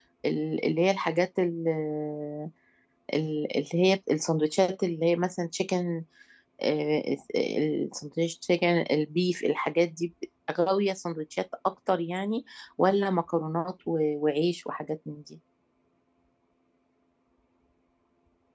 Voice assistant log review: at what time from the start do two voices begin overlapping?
none

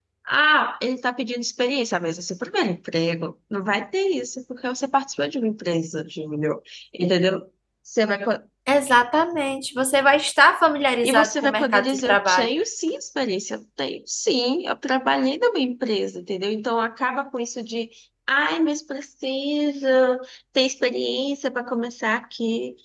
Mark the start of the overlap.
11 s

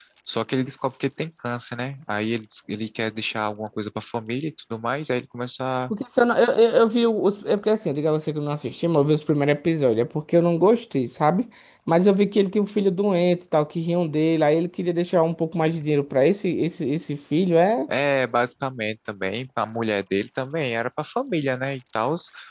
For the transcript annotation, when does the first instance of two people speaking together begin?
none

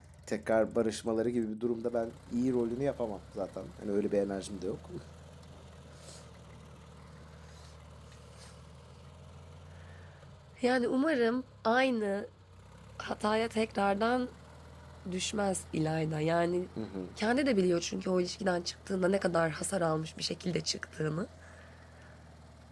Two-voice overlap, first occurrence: none

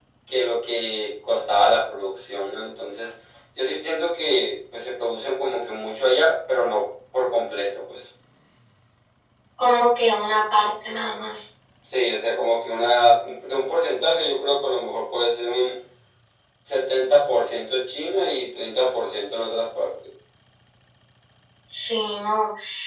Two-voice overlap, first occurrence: none

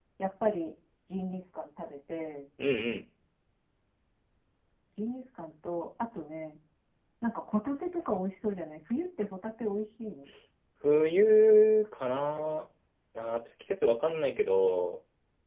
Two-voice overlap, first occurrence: none

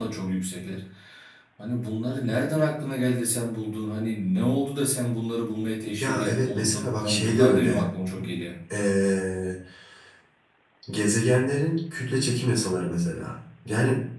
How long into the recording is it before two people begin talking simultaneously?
6 s

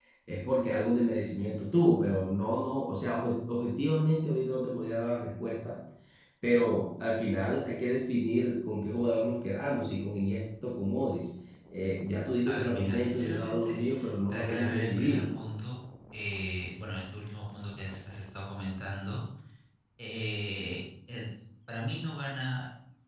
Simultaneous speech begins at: 12 s

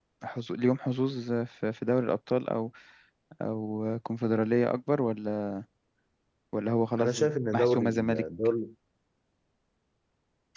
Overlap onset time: 7 s

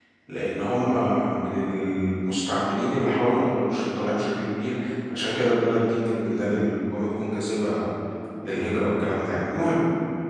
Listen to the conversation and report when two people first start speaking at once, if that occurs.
none

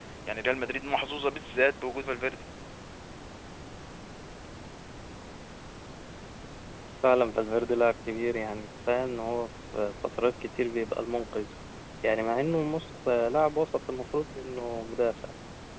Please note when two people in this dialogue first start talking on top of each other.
none

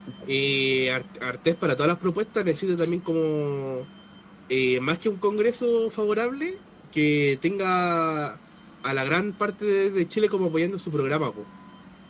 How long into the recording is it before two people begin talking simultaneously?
none

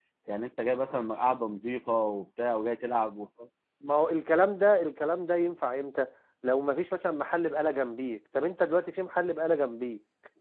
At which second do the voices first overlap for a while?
none

